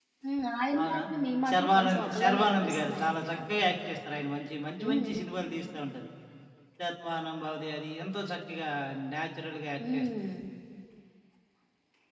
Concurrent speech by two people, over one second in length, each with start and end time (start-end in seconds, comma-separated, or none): 1.5-3.6